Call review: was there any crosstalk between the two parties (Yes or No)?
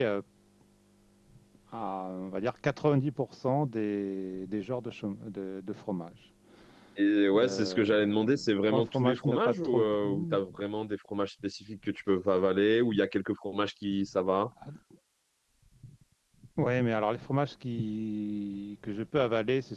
Yes